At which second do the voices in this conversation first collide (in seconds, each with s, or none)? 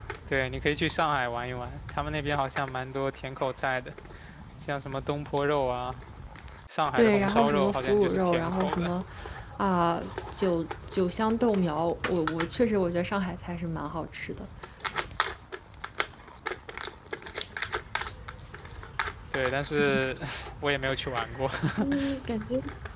7.0 s